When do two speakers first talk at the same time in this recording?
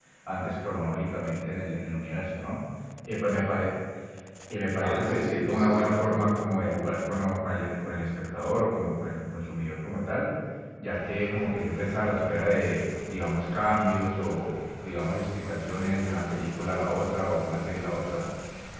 5 s

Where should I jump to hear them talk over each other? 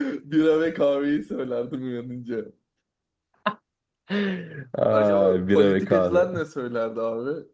5 s

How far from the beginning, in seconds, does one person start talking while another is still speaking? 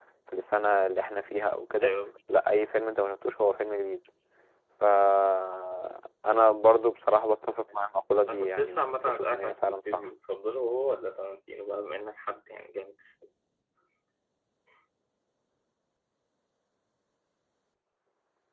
8 s

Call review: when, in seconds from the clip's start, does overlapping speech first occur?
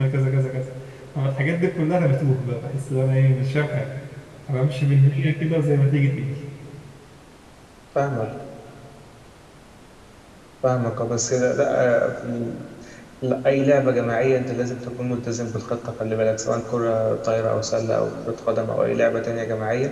none

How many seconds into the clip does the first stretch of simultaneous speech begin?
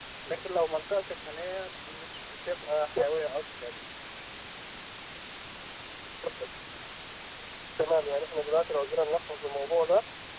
none

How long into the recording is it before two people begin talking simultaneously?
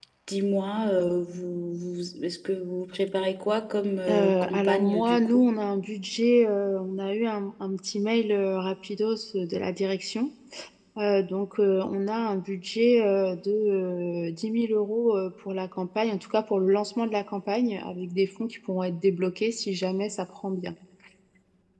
4 s

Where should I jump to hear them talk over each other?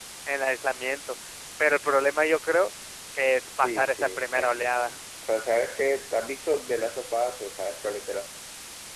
4 s

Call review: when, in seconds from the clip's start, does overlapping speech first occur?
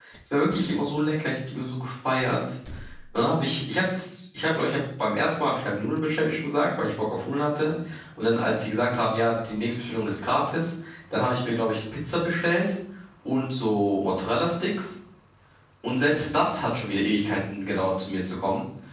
none

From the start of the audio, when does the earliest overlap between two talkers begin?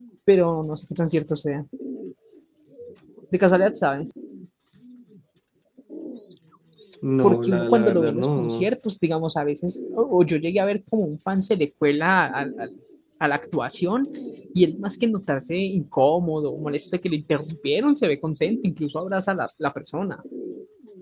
7 s

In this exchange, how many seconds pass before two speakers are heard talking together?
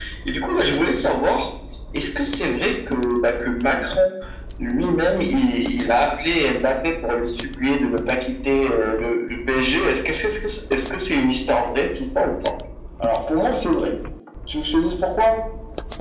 none

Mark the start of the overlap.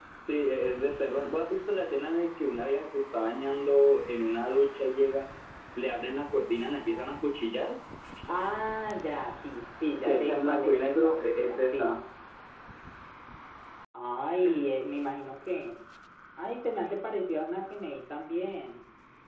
10 s

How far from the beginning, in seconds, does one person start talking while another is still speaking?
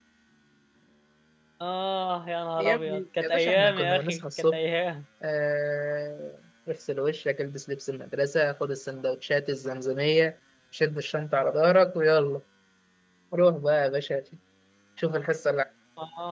3 s

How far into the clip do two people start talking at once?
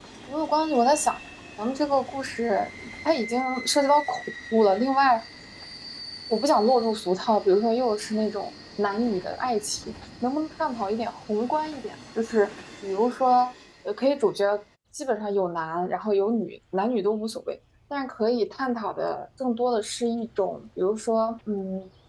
none

